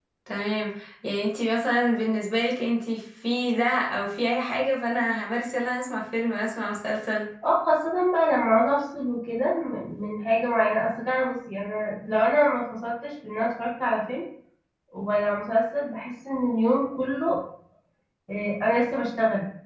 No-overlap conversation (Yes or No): Yes